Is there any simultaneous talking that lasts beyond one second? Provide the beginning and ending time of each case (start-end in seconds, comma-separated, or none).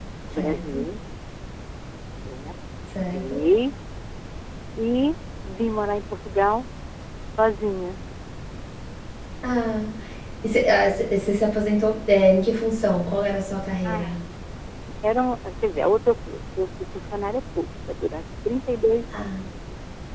none